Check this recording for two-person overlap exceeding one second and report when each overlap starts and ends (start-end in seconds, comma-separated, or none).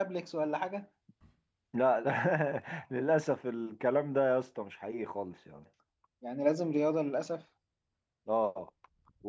none